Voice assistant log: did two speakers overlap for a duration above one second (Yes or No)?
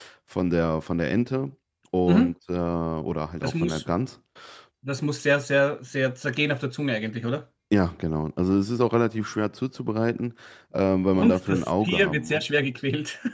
Yes